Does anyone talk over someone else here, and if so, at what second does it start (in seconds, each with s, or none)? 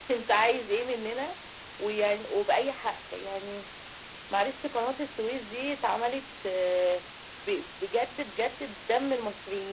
none